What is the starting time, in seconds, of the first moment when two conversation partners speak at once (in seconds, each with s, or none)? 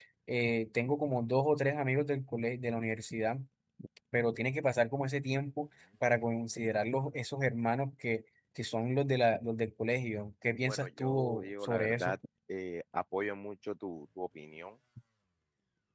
10.7 s